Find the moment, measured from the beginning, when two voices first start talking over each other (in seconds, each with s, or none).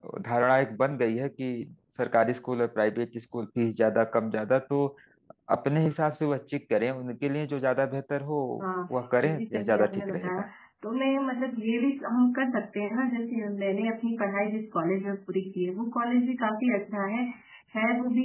9.2 s